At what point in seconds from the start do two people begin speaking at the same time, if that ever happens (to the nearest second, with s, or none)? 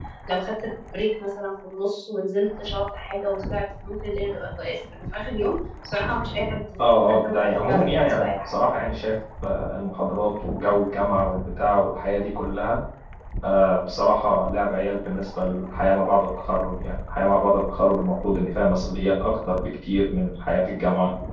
7 s